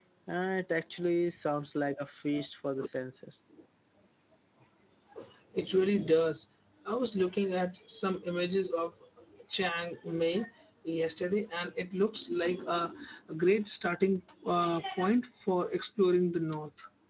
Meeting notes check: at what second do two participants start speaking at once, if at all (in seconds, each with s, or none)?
none